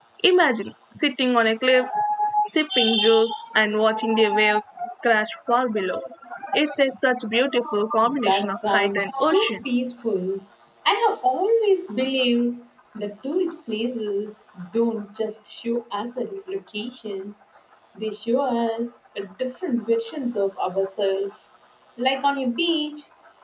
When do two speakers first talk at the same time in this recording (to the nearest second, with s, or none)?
8 s